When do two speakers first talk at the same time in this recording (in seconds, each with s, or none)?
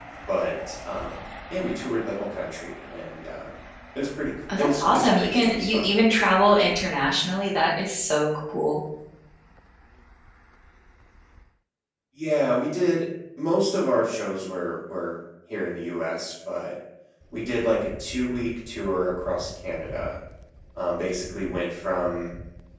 4.6 s